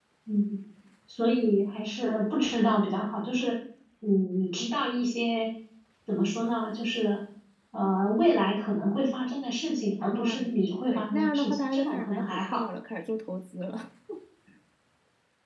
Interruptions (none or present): present